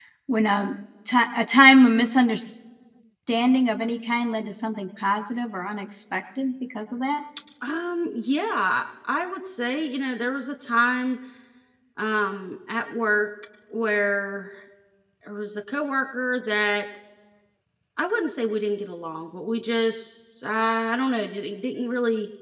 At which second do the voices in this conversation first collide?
none

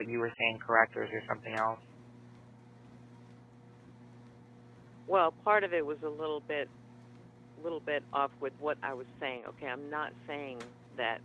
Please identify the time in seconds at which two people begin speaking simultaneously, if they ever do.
none

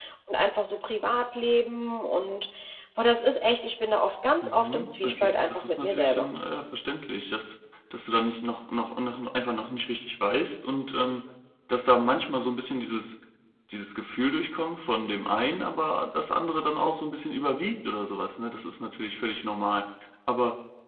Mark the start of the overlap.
4.4 s

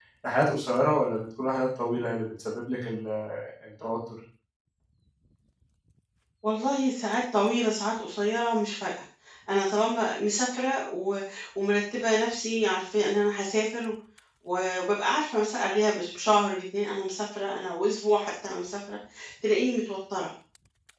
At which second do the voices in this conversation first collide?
none

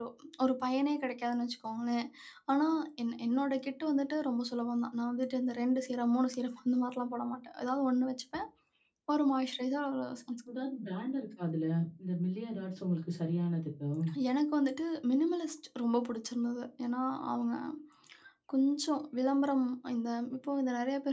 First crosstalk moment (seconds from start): none

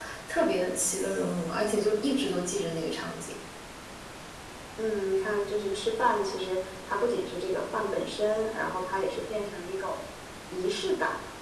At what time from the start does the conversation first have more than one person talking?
none

